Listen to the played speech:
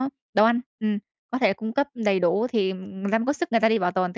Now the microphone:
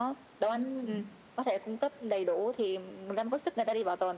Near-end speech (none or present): present